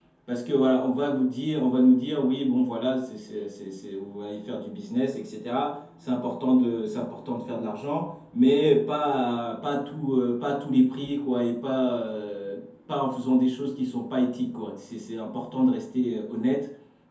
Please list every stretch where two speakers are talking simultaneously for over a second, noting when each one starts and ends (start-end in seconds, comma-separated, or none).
none